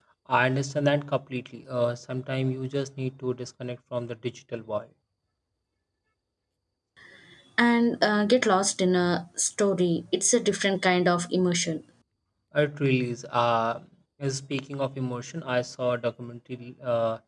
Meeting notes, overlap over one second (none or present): none